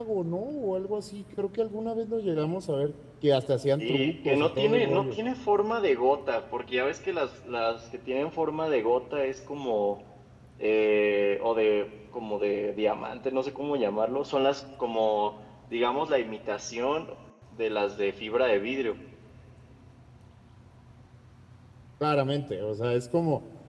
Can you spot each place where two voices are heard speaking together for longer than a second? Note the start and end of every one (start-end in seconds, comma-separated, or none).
3.8-5.2